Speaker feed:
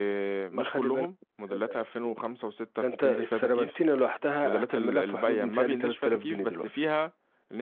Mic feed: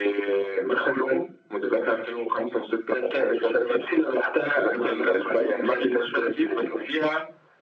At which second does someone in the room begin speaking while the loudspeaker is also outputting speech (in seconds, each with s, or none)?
none